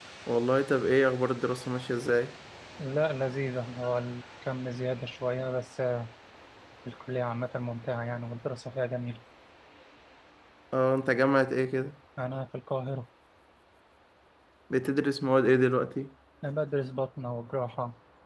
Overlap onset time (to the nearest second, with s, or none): none